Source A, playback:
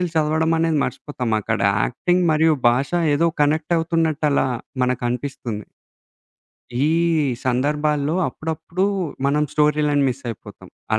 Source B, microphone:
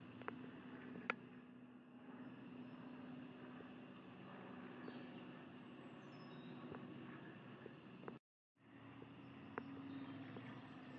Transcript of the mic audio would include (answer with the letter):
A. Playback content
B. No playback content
B